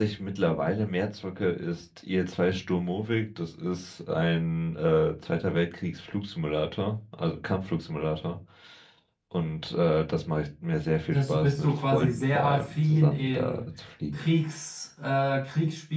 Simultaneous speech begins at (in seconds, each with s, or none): 11.1 s